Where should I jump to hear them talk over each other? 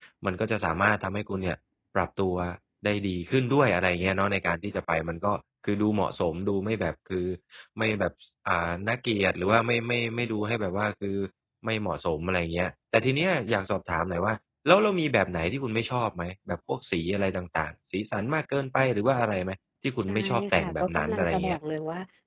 20 s

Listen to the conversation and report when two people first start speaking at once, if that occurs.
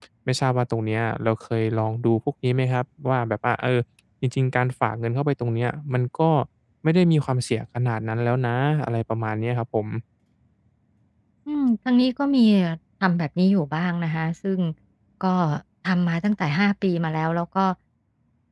none

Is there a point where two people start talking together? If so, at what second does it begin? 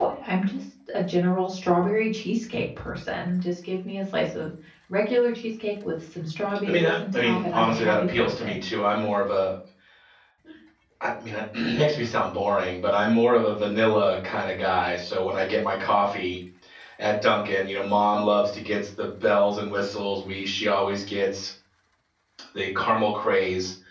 7 s

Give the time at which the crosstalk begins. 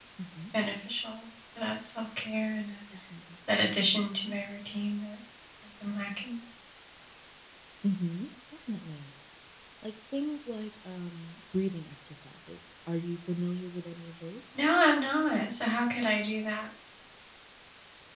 none

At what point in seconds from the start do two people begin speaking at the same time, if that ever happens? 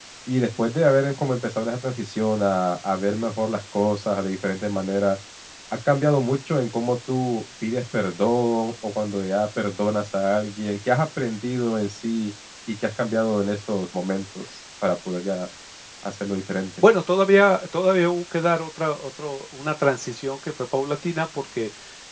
none

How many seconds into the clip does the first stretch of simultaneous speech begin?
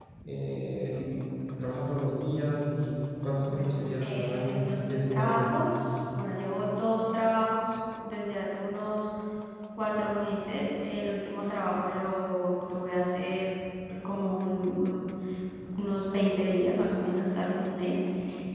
3 s

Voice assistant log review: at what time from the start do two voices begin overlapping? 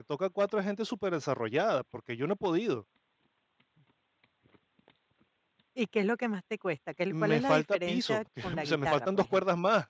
7 s

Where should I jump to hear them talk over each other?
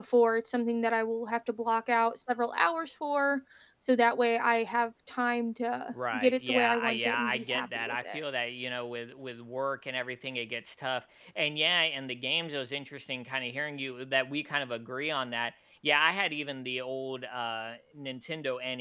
6 s

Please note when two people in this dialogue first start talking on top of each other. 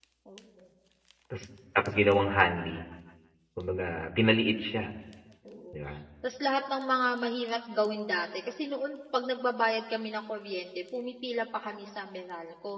none

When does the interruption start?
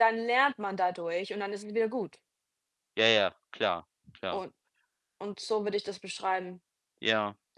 none

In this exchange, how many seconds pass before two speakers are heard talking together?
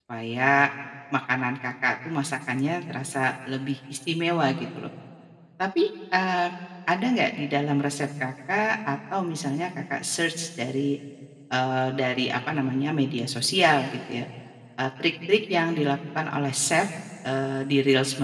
none

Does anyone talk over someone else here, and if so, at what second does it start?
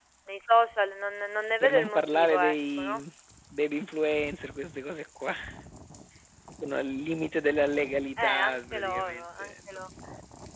2 s

